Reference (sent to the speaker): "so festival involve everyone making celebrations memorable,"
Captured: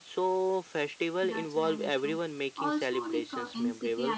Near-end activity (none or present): present